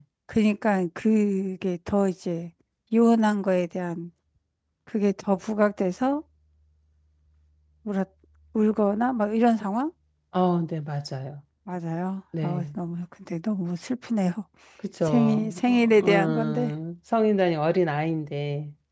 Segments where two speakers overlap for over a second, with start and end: 15.1-16.7

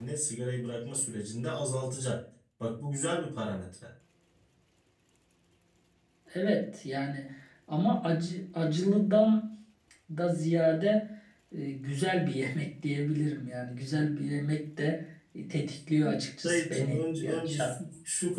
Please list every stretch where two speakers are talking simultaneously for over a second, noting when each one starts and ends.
16.4-17.7

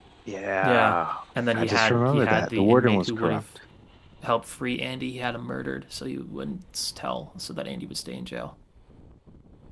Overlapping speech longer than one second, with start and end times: 1.5-3.4

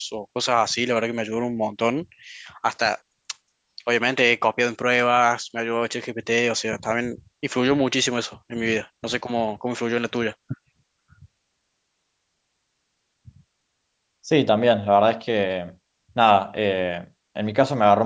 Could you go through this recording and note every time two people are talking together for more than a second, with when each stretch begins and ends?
none

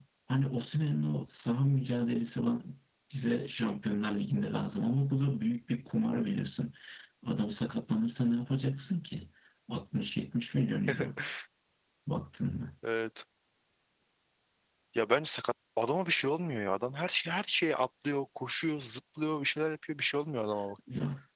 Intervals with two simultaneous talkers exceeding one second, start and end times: none

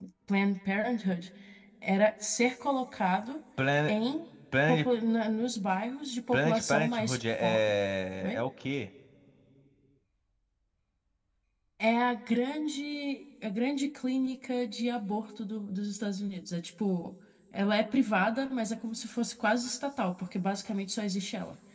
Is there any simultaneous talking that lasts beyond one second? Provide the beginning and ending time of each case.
6.3-7.7

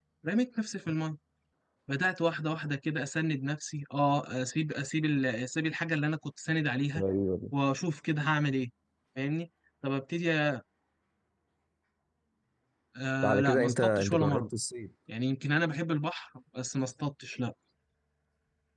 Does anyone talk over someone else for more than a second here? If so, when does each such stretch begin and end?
13.2-14.4

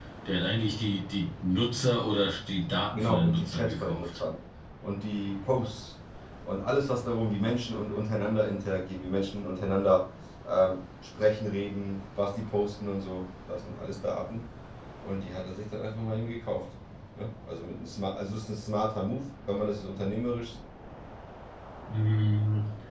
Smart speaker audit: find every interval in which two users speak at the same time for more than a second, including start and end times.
3.0-4.2

